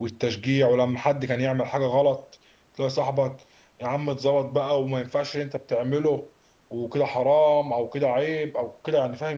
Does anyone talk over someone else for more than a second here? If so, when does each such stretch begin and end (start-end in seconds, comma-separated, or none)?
none